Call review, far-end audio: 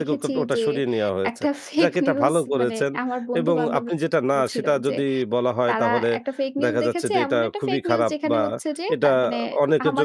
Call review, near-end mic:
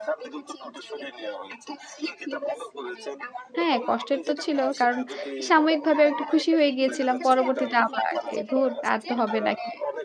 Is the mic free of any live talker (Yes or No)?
No